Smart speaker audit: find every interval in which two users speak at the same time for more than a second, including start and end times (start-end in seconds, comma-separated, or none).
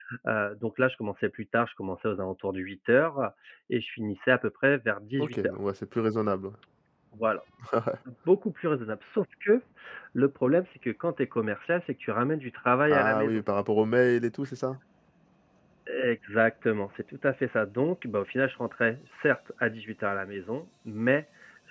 none